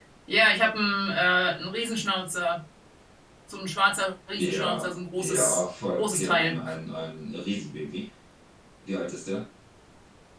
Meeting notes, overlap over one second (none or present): present